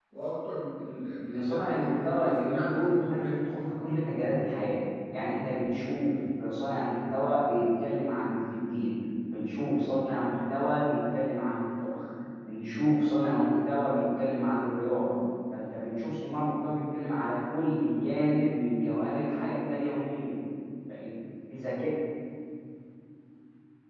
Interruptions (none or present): present